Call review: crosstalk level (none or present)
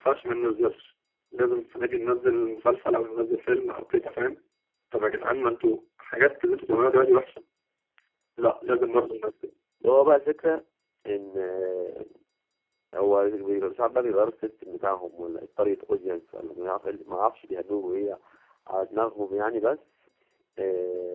none